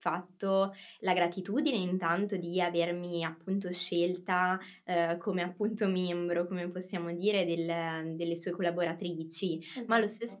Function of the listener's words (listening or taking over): listening